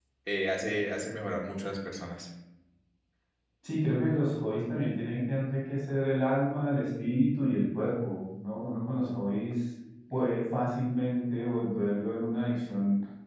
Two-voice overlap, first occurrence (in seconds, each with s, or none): none